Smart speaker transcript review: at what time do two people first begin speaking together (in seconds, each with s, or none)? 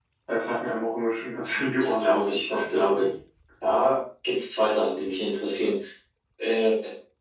1.8 s